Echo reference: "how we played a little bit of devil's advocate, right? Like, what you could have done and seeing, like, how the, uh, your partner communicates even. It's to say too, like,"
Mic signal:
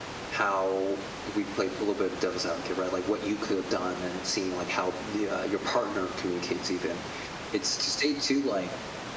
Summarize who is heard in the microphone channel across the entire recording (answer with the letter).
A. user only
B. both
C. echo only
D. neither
C